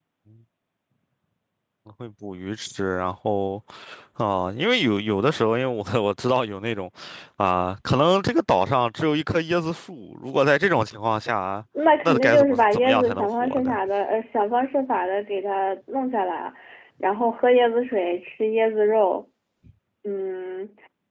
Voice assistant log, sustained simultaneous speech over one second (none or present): present